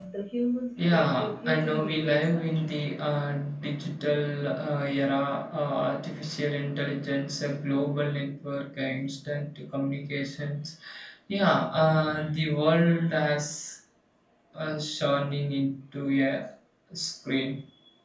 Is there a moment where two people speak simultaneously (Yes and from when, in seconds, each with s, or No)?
Yes, from 0.9 s